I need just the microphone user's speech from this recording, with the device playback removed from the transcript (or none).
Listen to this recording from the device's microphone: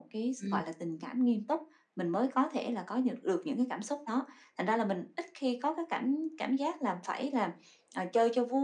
Ừm. OK